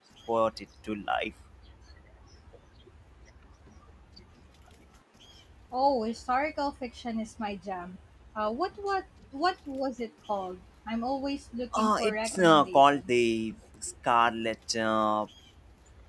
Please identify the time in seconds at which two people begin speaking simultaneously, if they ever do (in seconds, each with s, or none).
11.7 s